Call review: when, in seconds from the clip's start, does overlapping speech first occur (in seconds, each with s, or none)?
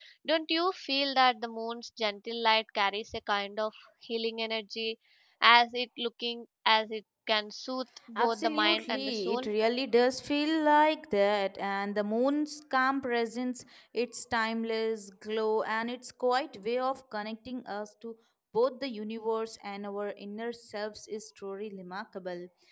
8.2 s